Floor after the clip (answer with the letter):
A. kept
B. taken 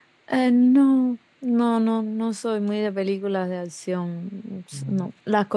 A